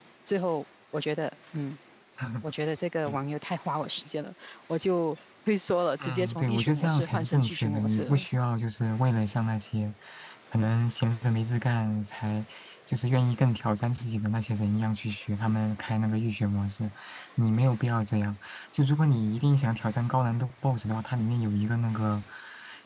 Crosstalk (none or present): present